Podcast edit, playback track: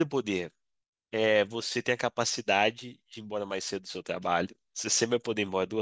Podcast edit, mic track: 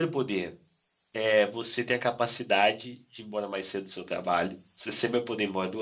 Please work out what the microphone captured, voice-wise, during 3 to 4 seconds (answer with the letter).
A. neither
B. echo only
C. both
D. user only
B